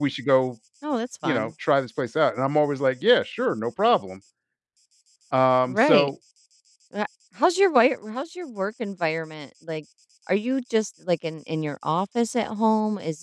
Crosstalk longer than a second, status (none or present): none